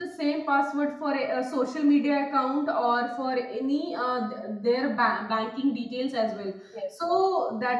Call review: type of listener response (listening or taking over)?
listening